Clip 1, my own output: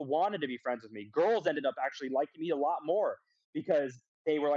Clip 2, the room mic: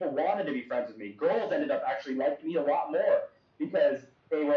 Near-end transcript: none

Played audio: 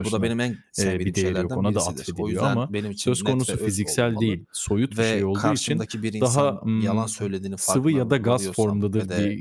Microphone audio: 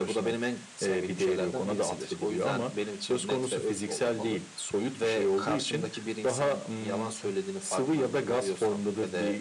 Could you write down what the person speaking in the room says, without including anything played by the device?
none

